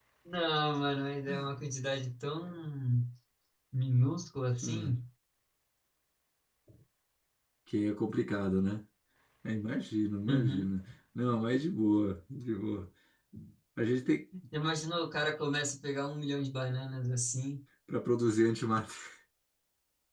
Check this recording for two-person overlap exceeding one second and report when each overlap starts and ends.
none

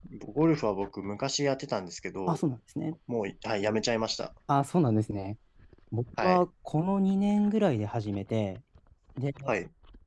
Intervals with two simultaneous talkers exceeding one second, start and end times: none

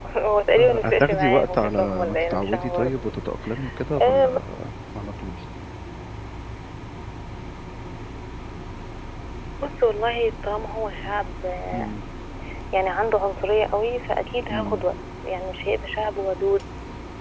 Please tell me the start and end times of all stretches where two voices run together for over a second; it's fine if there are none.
0.5-3.0

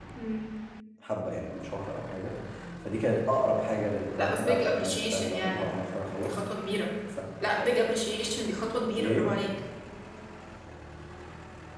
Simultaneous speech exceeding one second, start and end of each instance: 4.2-5.7

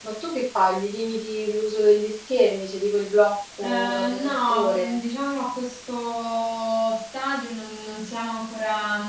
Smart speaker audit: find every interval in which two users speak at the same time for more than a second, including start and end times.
3.6-5.0

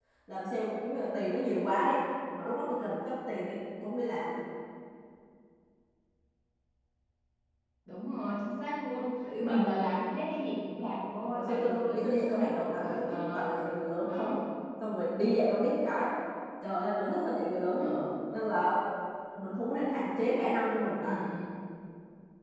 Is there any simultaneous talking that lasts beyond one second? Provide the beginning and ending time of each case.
11.3-13.5

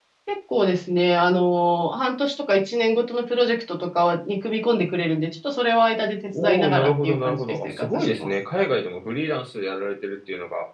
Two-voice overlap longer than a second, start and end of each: 6.4-8.3

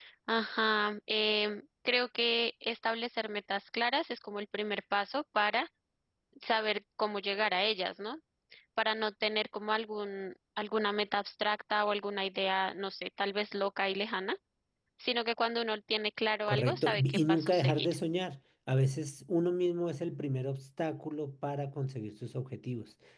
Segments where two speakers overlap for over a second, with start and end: 16.5-17.9

